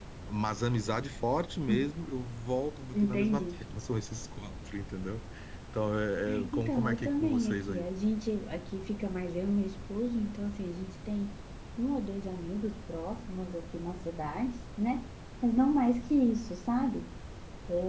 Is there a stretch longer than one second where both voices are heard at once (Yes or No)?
Yes